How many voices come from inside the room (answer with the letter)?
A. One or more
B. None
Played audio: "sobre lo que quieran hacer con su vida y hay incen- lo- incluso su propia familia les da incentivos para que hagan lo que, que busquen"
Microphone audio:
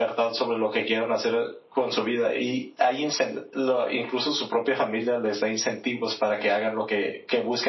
B